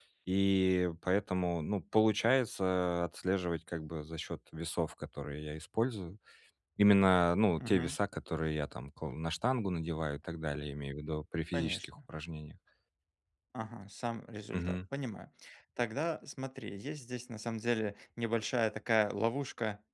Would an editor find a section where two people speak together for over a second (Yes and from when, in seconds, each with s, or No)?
No